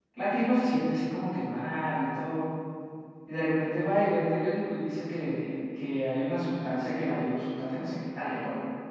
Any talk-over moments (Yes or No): No